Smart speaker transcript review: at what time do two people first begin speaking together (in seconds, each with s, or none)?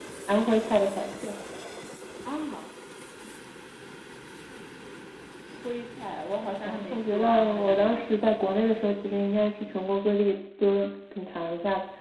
6.7 s